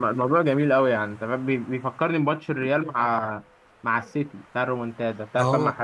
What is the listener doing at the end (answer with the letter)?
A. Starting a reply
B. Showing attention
A